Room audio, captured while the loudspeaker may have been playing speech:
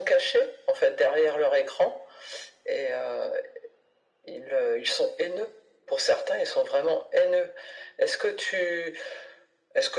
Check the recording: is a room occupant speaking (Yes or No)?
No